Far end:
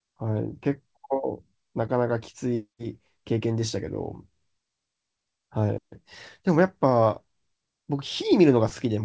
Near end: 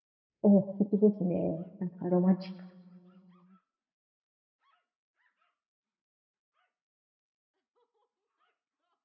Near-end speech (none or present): present